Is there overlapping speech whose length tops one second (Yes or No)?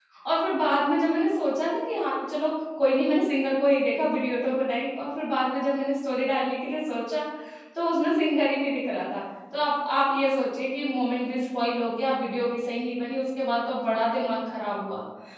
No